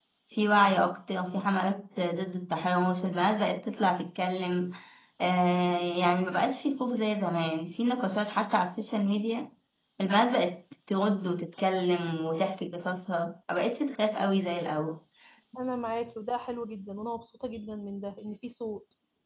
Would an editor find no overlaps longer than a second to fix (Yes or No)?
Yes